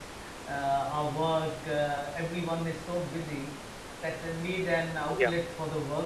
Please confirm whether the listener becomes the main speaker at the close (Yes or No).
No